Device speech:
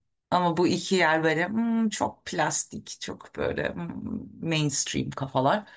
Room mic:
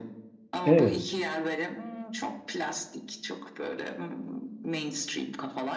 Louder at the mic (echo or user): user